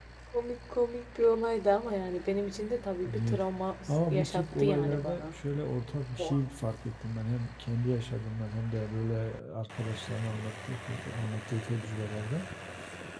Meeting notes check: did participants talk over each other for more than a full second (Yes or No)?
Yes